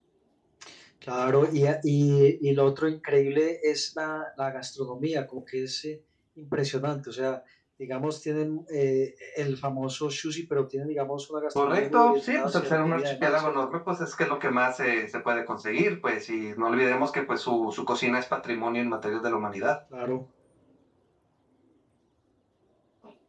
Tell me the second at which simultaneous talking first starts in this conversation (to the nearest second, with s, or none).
12 s